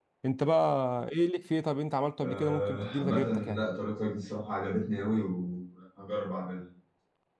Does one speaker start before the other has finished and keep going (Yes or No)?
Yes